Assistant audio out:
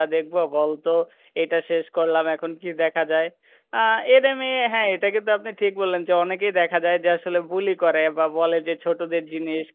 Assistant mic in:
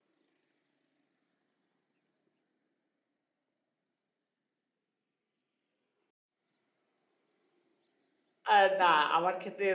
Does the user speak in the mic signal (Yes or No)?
Yes